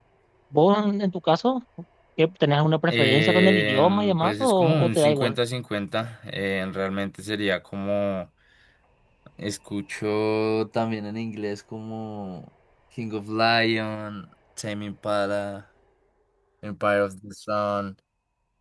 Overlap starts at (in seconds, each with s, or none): 2.9 s